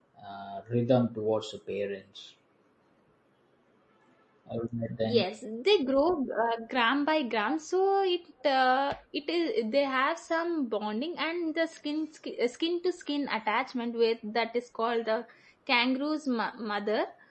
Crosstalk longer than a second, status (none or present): none